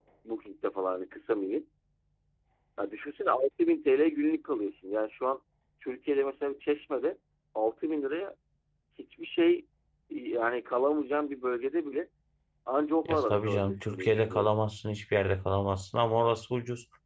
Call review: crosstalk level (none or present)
present